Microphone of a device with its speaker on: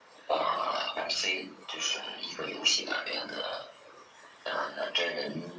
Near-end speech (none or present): none